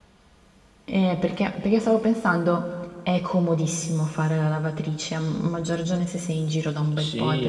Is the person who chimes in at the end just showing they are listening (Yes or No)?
No